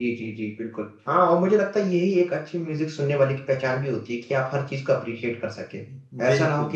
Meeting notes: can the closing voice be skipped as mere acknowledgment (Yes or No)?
Yes